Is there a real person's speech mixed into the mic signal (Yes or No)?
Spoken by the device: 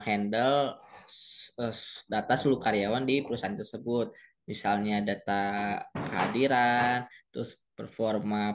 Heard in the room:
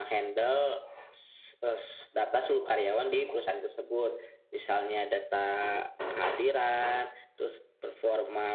No